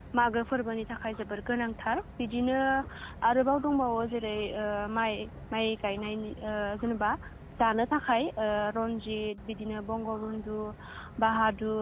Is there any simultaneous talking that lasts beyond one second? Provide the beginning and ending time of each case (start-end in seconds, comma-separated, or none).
none